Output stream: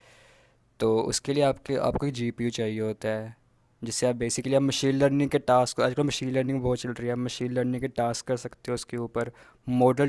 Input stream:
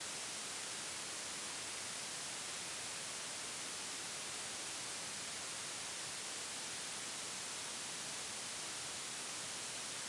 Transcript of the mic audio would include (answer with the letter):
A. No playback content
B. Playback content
A